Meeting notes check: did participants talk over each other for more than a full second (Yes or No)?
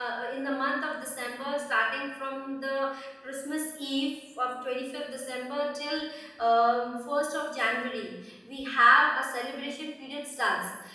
No